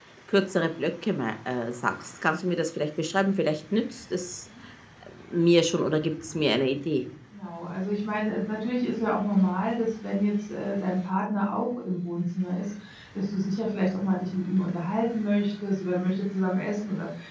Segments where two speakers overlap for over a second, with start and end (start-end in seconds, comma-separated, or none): none